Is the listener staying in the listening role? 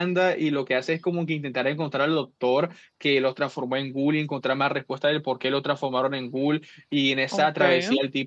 Yes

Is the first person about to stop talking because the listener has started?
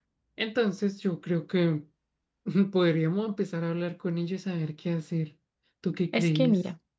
Yes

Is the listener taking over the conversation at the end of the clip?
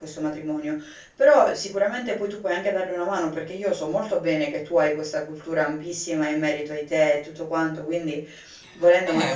Yes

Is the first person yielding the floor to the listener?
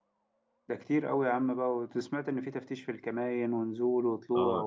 Yes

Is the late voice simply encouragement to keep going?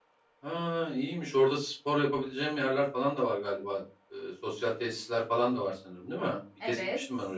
No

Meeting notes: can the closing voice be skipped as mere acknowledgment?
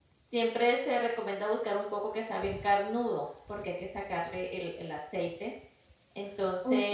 No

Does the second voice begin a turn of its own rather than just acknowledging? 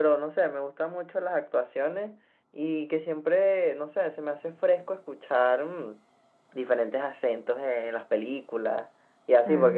No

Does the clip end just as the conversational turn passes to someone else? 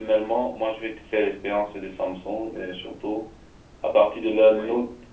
No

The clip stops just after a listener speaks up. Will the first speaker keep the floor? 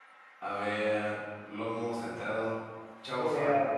No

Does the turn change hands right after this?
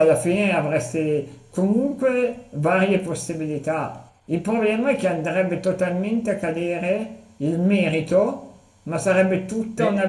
No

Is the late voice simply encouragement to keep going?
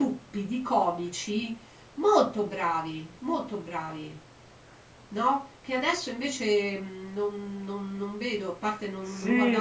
No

